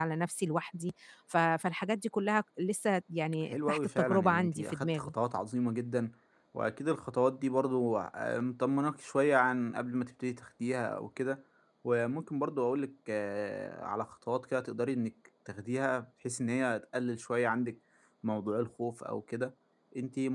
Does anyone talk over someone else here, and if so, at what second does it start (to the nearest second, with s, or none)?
4 s